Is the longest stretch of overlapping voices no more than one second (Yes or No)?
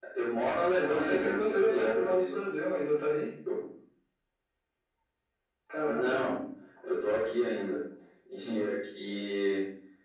No